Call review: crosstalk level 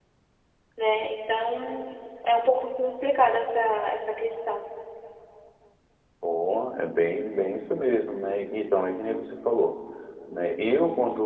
none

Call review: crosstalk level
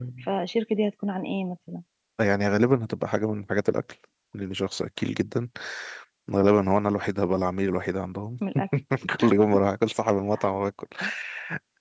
none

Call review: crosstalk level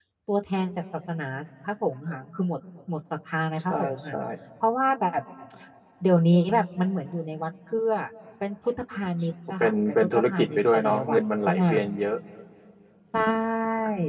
present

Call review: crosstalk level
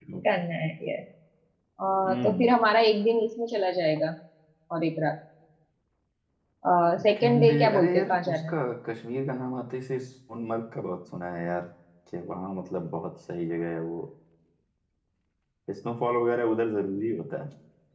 present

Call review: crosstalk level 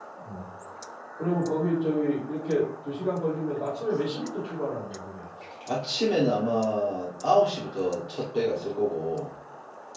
none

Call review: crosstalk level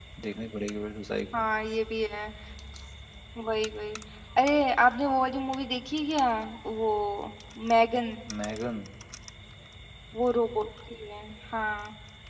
none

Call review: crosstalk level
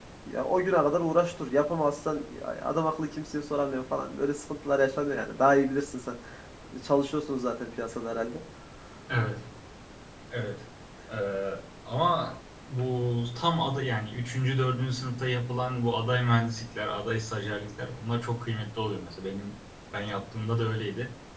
none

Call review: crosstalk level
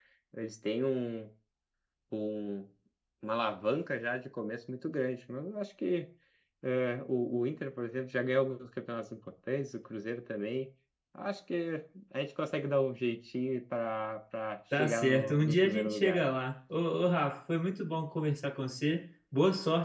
present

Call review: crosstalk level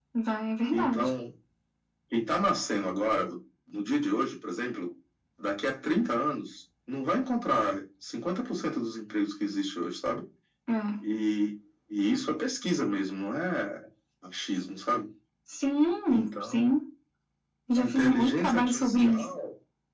present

